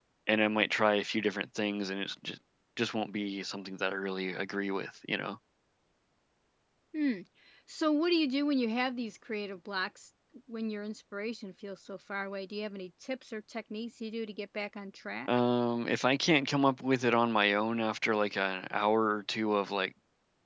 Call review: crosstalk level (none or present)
none